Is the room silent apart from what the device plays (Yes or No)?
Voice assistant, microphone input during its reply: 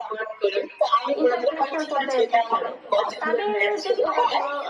No